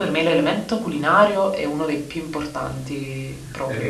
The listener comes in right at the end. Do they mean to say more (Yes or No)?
Yes